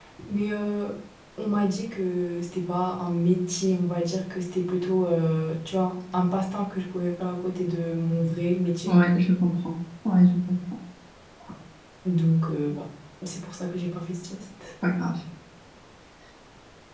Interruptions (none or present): none